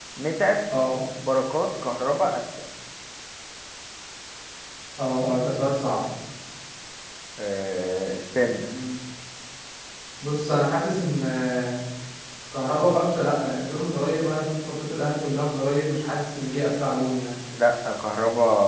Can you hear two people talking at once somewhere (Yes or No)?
No